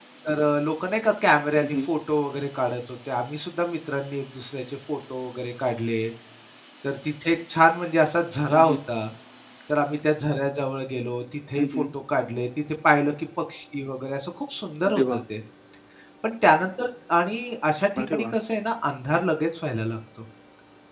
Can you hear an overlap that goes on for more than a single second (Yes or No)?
No